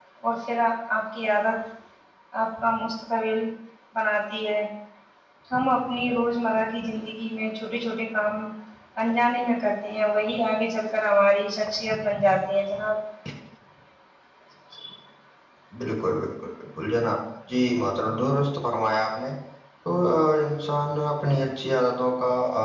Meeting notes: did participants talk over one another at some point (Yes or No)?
No